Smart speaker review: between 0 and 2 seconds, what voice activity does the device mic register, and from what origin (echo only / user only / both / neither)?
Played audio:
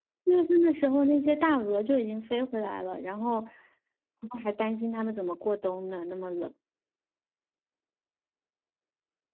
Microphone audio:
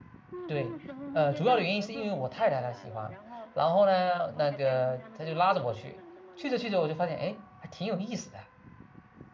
both